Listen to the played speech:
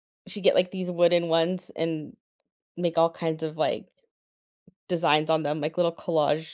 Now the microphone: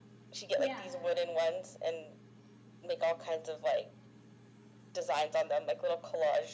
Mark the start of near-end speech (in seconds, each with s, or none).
0.6 s